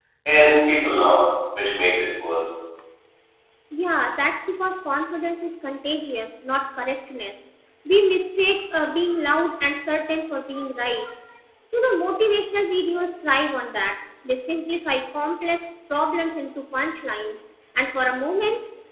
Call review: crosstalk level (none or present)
none